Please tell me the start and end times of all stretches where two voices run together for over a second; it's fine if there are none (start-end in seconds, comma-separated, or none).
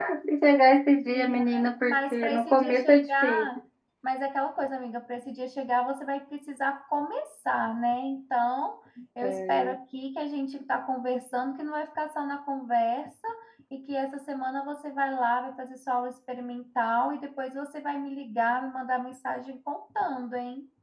1.1-3.5